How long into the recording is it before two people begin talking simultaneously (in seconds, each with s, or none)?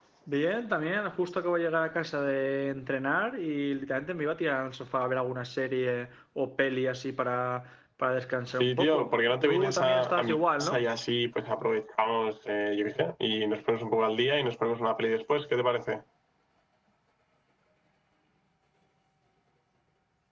8.6 s